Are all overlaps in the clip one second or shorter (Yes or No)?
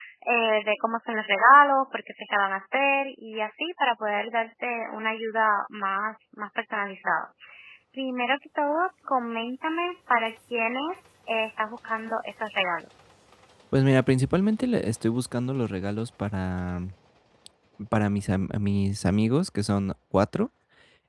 Yes